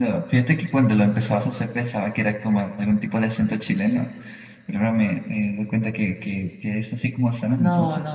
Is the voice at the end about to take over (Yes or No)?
Yes